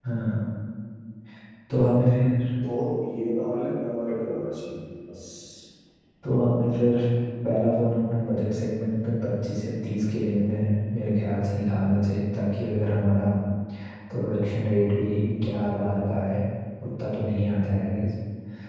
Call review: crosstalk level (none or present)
none